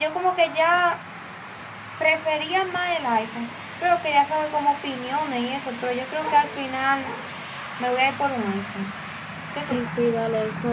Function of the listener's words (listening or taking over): taking over